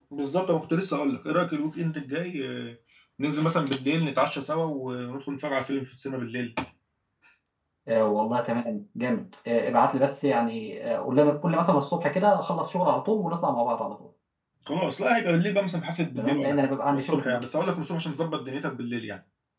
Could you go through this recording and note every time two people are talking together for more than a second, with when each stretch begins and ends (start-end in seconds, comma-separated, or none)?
16.2-17.4